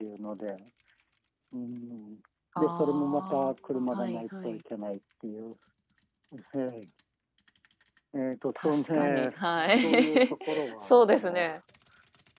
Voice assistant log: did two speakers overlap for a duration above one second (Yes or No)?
Yes